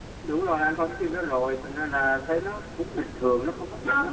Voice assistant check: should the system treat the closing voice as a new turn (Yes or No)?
Yes